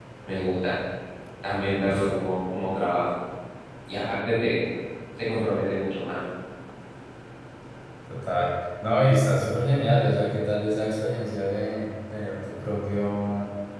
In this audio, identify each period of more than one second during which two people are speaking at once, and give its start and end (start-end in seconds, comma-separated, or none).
none